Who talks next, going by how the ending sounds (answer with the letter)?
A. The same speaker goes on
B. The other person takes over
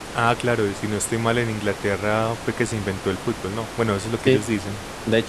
B